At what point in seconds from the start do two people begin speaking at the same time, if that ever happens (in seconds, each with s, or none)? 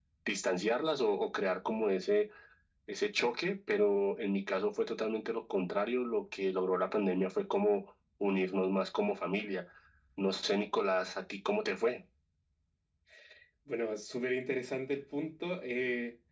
none